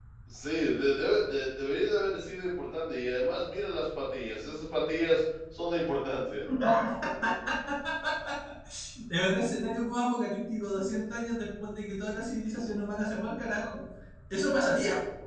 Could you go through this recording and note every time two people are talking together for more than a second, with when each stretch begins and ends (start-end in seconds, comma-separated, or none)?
none